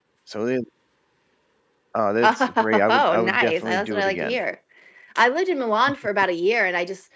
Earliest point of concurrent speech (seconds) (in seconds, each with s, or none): 2.2 s